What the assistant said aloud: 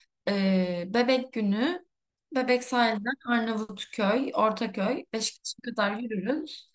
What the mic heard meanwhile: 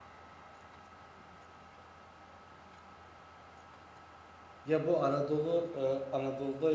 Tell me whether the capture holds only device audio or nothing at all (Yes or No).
No